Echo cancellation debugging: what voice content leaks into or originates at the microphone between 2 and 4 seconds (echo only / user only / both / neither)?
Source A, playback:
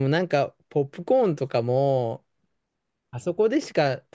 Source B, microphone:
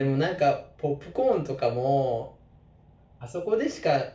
echo only